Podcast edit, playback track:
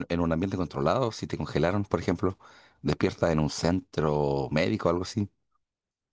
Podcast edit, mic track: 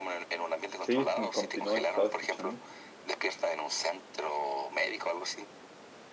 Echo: present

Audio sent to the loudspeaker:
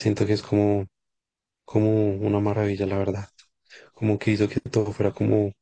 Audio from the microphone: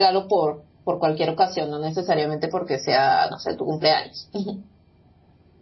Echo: none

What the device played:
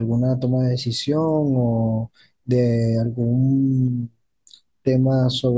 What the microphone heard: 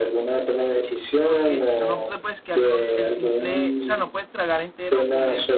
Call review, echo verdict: present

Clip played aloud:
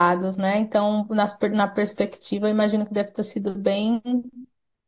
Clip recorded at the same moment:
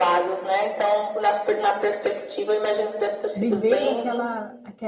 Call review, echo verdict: present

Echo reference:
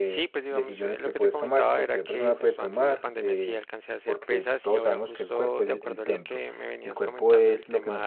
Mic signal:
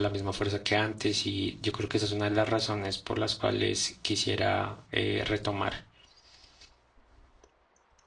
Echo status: none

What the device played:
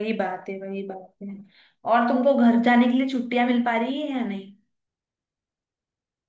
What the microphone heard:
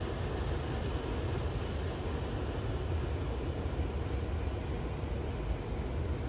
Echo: none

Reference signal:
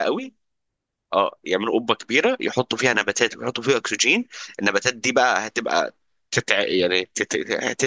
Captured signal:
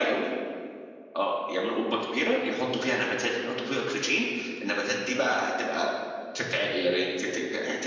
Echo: present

